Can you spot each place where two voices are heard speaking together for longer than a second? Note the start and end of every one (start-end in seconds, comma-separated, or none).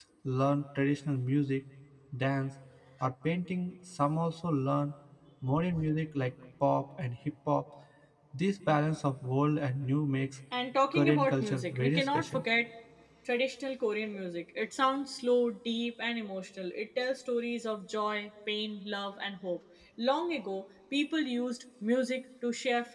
10.9-12.4